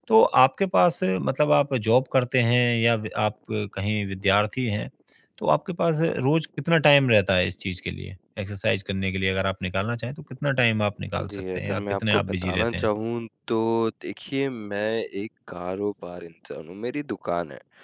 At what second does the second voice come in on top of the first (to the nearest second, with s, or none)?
11 s